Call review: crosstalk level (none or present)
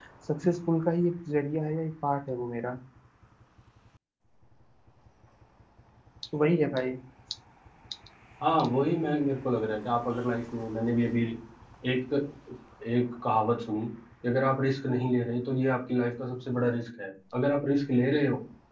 none